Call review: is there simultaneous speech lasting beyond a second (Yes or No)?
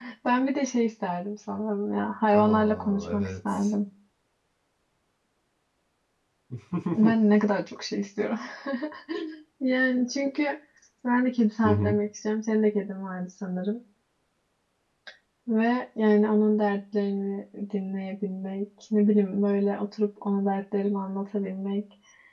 Yes